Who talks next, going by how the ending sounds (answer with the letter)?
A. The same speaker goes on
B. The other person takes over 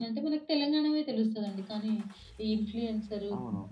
A